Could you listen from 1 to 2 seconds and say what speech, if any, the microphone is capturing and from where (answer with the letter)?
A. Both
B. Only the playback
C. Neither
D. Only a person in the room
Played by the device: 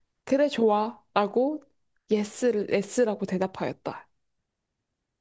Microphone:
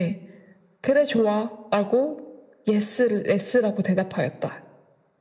B